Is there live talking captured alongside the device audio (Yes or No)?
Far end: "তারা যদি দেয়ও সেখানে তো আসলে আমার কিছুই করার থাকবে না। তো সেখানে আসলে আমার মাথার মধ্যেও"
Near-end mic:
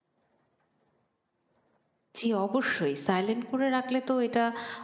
Yes